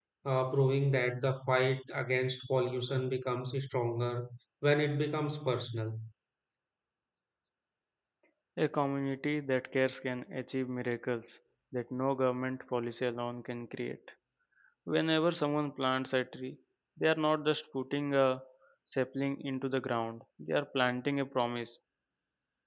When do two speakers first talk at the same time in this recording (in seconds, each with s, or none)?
none